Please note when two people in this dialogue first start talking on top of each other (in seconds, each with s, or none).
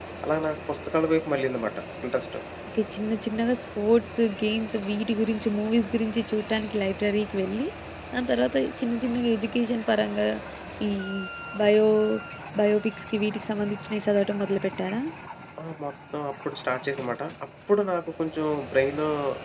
none